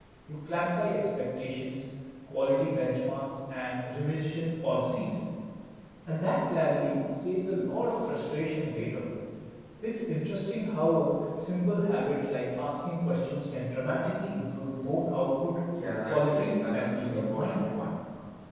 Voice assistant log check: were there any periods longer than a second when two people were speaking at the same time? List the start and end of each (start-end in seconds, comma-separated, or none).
16.0-17.7